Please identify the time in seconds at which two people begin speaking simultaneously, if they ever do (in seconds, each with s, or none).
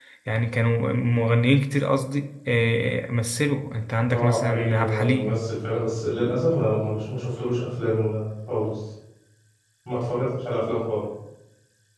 4.1 s